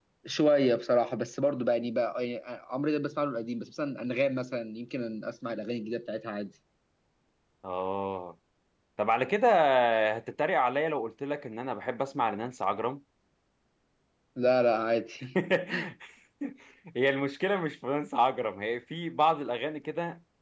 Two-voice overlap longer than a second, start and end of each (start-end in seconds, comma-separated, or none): none